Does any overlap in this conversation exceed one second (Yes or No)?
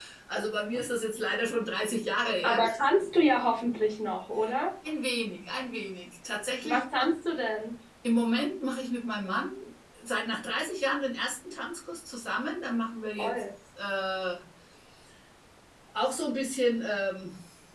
No